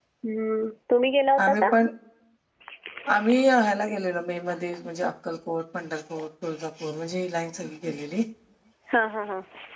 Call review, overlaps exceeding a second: none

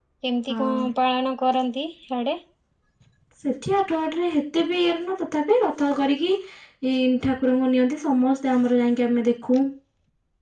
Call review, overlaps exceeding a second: none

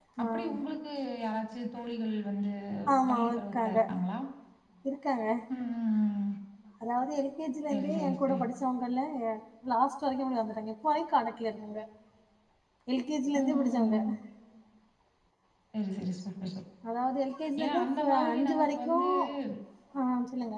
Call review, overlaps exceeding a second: present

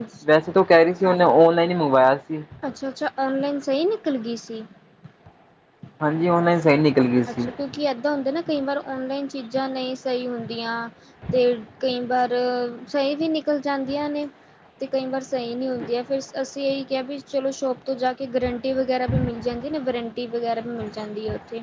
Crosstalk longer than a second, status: none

